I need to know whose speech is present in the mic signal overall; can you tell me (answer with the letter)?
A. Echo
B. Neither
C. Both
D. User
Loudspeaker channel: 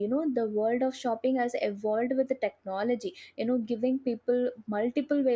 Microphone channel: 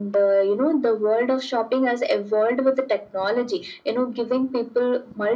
A